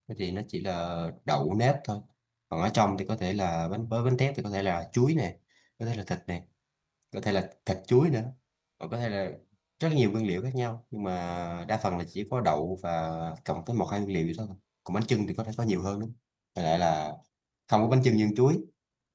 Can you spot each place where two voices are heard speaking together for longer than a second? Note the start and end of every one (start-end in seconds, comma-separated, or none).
none